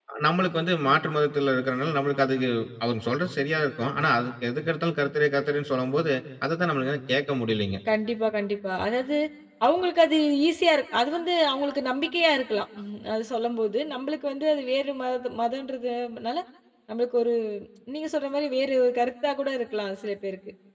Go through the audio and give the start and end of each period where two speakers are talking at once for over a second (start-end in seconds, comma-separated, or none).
none